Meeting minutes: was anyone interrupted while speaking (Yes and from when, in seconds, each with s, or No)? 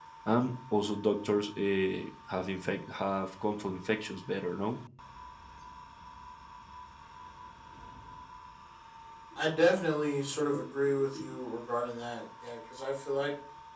No